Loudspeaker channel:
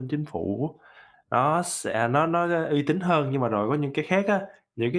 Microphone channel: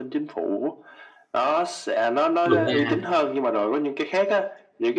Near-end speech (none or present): present